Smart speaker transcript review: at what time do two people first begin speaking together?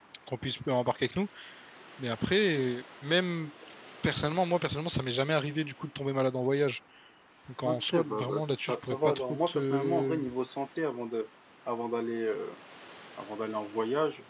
7.7 s

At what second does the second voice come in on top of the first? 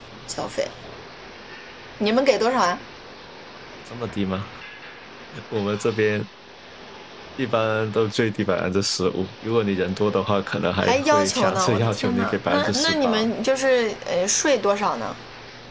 10.8 s

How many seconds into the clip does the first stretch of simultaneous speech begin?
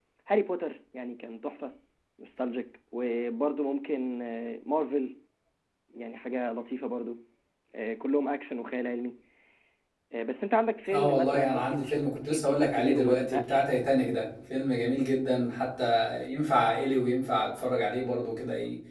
10.9 s

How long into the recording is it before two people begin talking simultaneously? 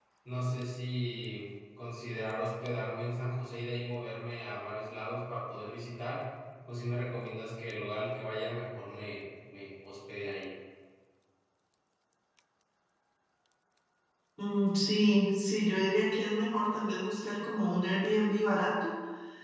none

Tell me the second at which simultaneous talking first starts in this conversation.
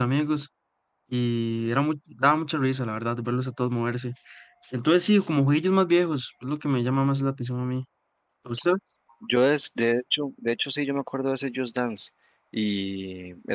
none

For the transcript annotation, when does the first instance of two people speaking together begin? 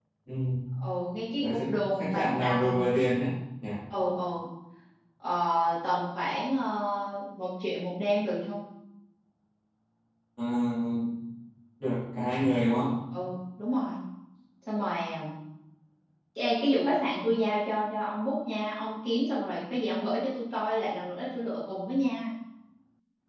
1.4 s

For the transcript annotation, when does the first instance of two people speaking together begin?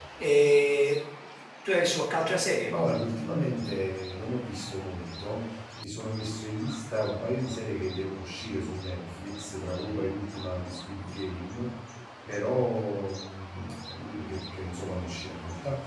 none

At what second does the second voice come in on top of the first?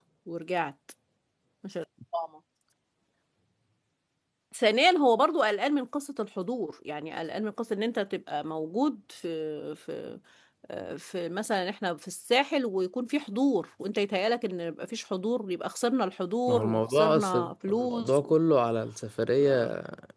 16.5 s

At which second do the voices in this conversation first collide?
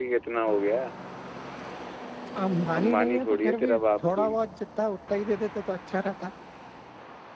2.8 s

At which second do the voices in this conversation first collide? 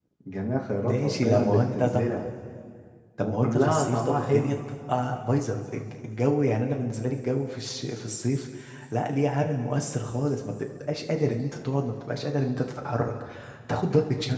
0.8 s

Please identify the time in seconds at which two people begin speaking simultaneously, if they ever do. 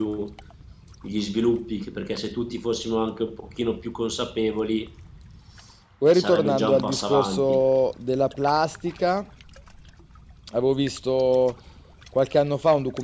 6.1 s

